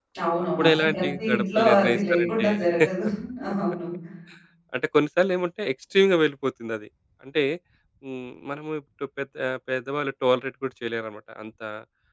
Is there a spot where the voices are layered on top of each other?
Yes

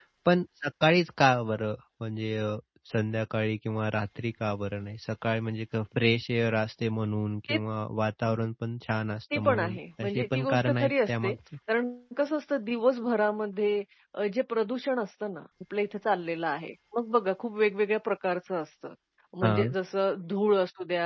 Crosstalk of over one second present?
Yes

